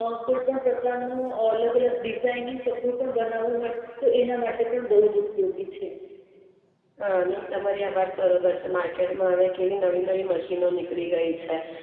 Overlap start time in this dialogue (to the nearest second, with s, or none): none